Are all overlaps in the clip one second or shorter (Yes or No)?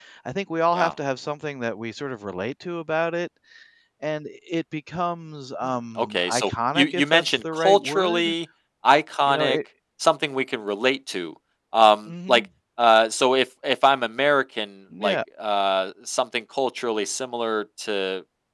No